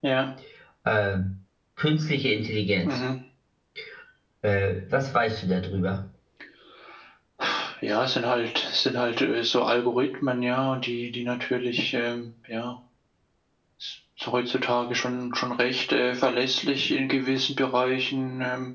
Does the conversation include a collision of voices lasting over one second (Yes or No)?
No